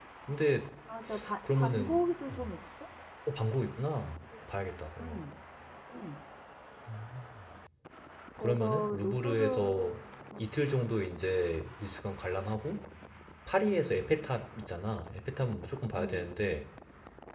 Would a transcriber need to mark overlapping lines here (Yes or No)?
Yes